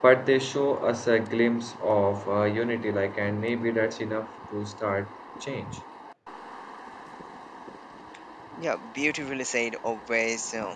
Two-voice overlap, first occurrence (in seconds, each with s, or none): none